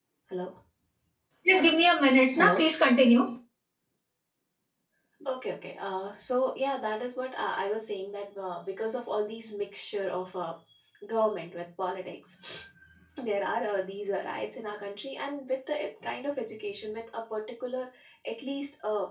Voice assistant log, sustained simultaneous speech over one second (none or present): none